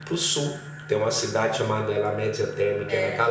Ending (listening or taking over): listening